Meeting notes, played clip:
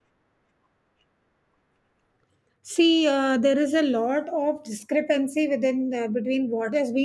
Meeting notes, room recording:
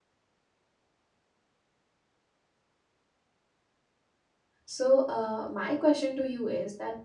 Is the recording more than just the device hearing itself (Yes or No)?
Yes